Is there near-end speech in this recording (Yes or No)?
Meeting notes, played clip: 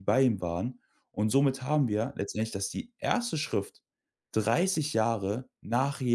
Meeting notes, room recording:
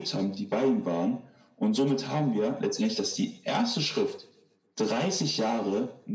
No